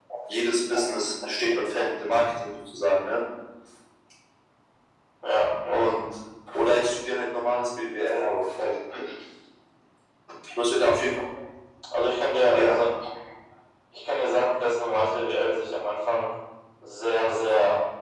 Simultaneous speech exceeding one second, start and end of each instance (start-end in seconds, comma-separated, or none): none